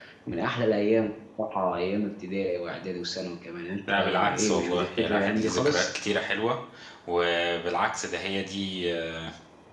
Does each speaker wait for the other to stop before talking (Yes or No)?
No